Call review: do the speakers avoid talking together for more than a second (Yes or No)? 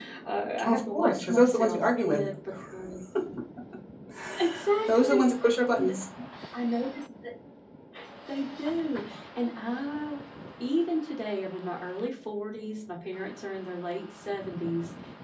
No